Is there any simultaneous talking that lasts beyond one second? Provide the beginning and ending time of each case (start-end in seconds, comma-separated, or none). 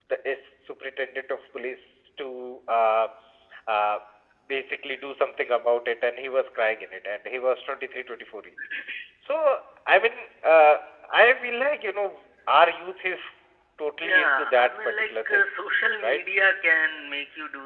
14.0-15.4